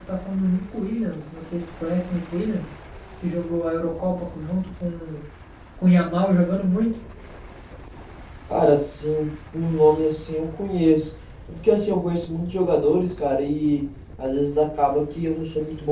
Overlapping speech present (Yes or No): No